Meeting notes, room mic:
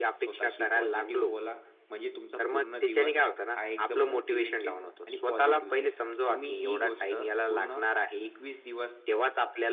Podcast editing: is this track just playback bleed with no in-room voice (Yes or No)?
No